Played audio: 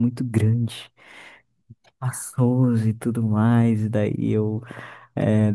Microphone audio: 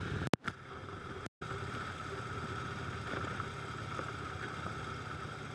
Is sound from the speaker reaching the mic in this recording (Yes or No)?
No